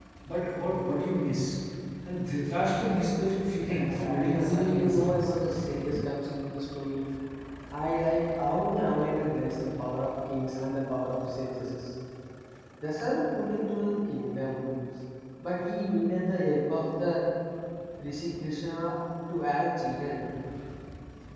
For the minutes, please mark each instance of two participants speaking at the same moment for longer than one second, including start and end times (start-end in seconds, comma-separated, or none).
3.6-5.3